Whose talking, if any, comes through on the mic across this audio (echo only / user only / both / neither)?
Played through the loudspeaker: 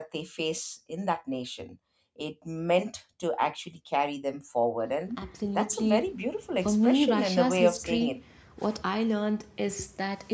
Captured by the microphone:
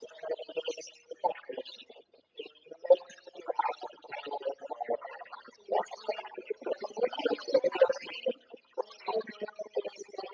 echo only